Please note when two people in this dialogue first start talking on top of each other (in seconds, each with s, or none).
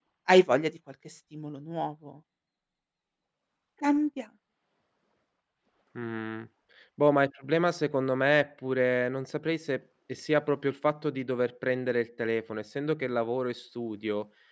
none